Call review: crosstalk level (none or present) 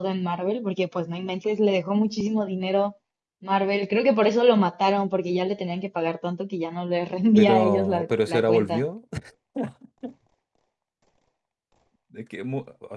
present